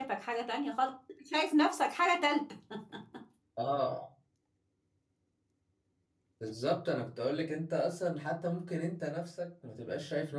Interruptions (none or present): none